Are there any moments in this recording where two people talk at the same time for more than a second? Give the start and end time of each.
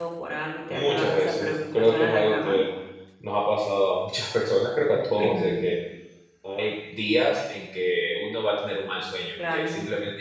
0.7-2.6

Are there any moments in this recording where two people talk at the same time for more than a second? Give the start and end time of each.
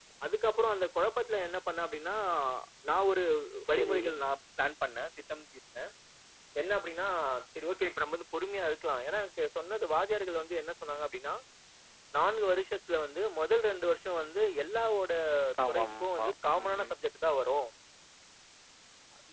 15.7-16.9

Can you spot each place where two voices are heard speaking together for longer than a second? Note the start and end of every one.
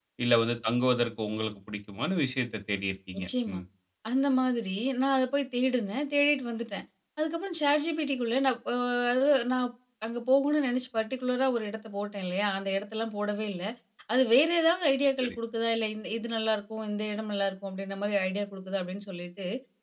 none

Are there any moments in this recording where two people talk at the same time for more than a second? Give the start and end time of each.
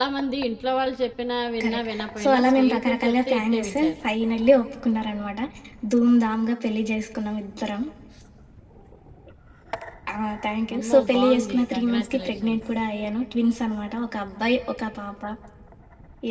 1.6-3.9, 10.8-12.6

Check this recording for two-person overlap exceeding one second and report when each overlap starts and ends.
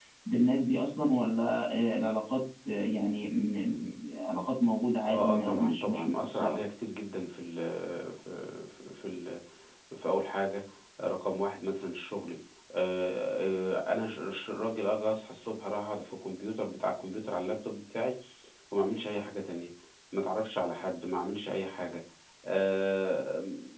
5.1-6.6

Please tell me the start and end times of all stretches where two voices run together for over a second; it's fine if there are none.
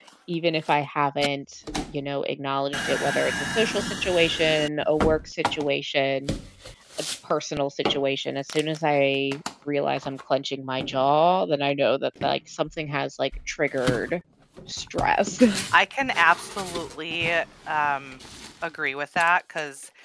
none

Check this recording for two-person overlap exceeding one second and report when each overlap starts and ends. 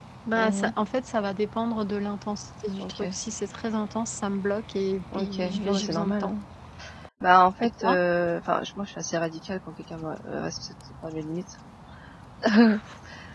5.1-6.3

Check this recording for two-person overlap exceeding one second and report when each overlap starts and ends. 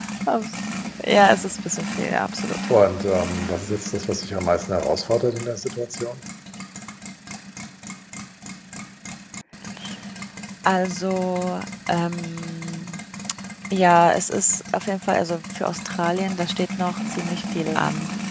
none

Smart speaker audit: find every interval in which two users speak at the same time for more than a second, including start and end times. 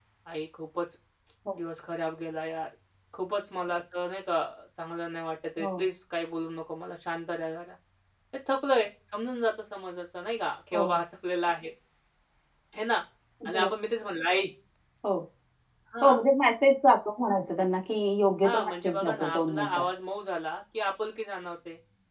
18.4-19.8

